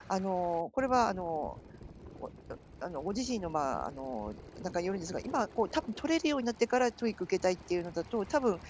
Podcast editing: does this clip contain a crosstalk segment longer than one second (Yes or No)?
No